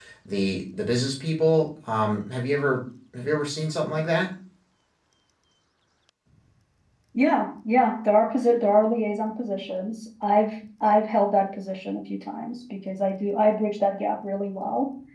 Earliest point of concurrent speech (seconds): none

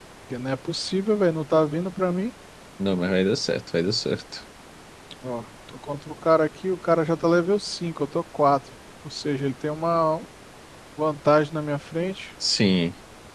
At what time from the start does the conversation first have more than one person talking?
none

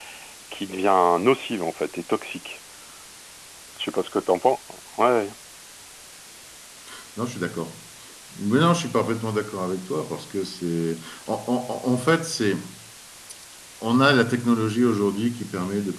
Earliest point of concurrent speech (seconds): none

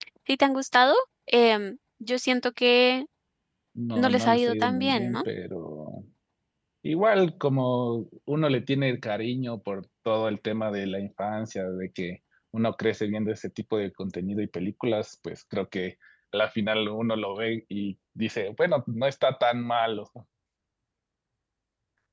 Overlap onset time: 4.0 s

